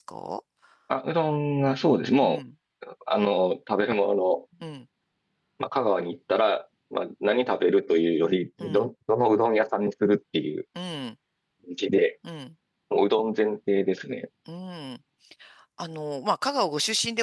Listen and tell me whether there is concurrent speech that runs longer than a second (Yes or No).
No